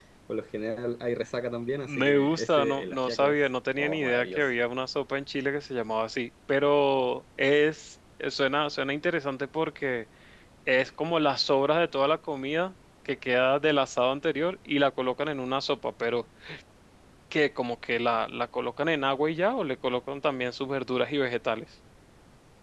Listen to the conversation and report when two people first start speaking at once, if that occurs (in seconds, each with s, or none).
1.8 s